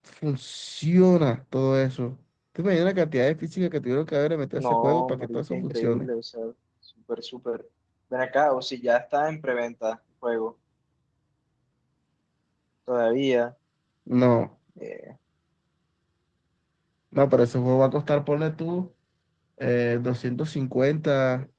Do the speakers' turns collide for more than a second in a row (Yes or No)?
Yes